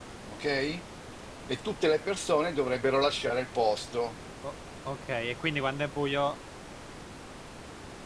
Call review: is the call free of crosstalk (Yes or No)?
Yes